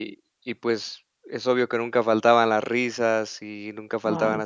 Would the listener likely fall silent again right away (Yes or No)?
Yes